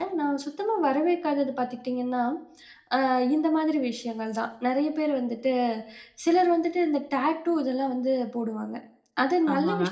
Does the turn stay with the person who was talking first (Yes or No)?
Yes